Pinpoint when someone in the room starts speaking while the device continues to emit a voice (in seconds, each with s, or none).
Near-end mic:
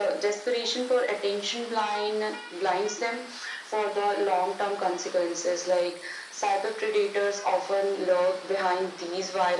none